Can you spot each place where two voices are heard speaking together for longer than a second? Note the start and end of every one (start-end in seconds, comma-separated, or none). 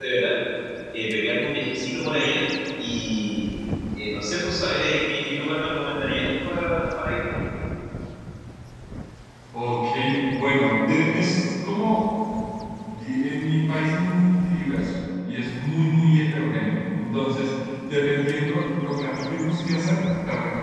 none